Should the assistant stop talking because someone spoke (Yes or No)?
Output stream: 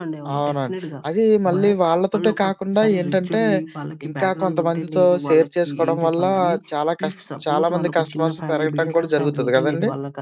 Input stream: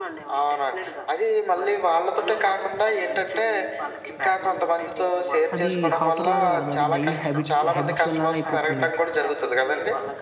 Yes